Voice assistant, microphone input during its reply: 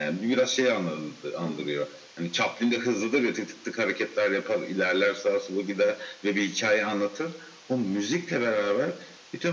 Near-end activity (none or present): present